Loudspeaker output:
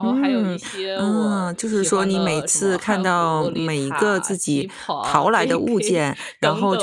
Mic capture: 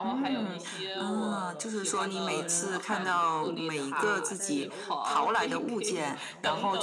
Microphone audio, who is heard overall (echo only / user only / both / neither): both